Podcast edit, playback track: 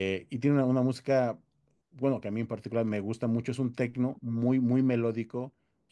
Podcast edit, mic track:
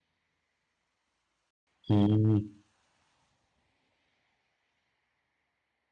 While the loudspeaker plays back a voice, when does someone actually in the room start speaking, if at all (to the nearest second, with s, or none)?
2 s